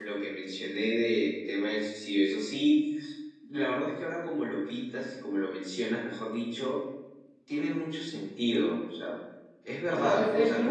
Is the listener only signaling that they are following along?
No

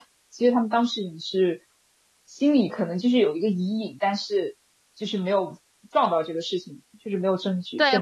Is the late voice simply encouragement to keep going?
No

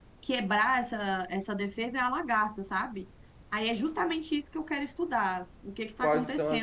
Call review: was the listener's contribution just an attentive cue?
No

